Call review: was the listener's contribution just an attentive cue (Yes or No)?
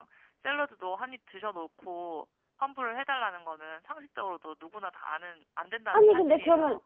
No